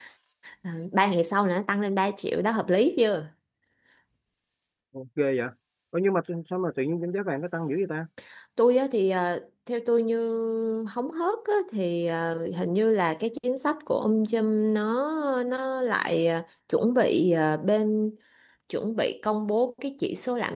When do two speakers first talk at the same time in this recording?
none

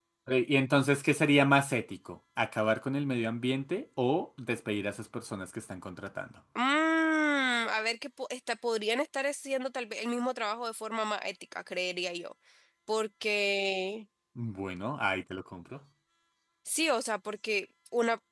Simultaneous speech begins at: none

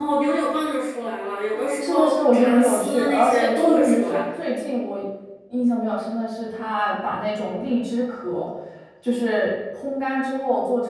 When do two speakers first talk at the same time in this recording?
1.8 s

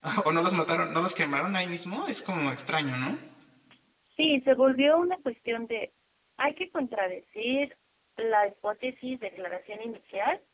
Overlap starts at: none

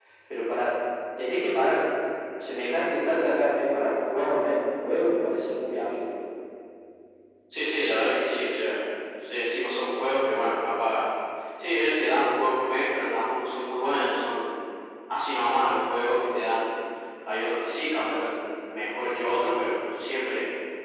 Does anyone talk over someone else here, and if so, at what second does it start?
none

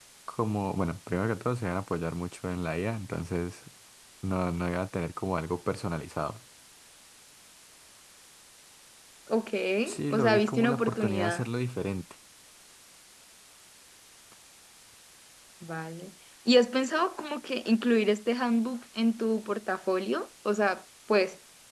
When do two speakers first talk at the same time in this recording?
10.1 s

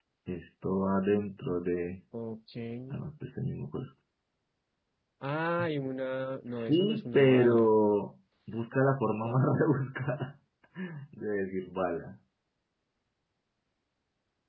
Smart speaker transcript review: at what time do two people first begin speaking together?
6.5 s

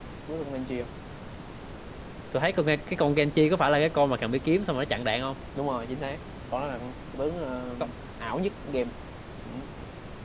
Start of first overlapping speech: none

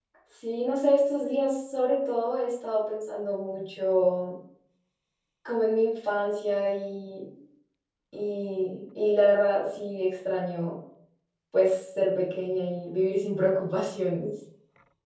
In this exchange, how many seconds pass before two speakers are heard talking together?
none

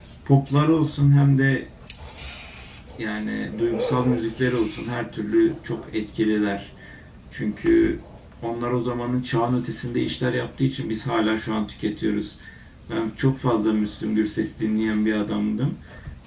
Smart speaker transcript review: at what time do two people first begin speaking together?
none

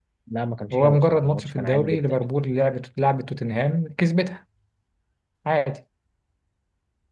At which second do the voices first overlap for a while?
0.7 s

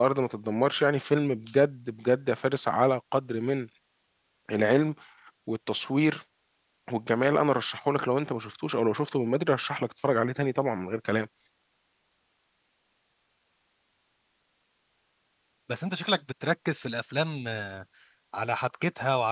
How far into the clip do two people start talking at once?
none

